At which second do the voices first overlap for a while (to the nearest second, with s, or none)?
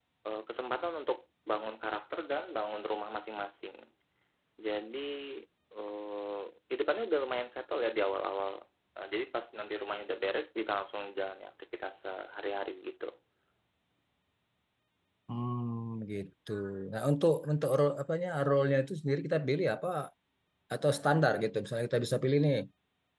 none